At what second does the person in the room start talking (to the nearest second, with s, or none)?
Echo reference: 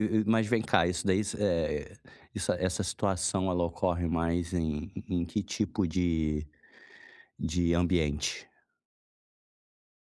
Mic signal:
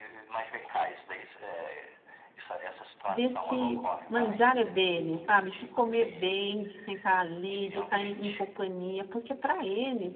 3 s